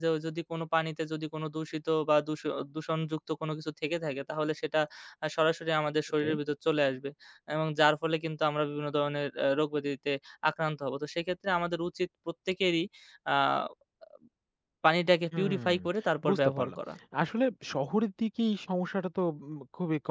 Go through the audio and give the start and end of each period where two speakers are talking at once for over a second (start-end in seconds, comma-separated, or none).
none